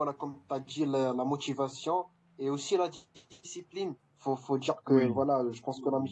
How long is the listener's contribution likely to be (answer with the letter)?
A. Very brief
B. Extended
A